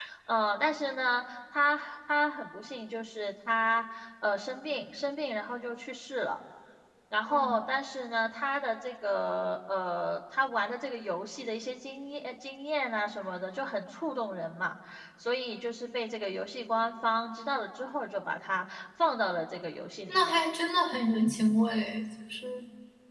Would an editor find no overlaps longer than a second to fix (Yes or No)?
Yes